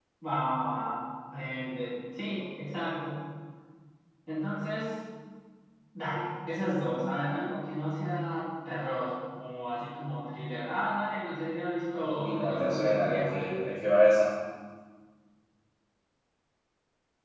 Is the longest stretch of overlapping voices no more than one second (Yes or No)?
No